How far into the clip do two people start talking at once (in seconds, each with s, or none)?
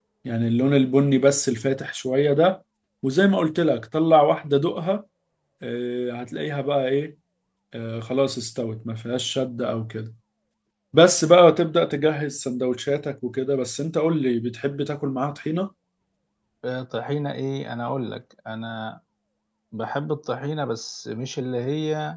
none